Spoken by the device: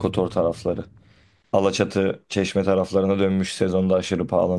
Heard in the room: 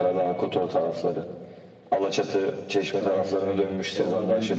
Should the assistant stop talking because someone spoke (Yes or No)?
Yes